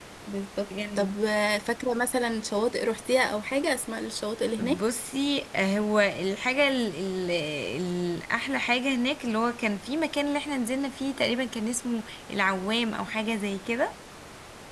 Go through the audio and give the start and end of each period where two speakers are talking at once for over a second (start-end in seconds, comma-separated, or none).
none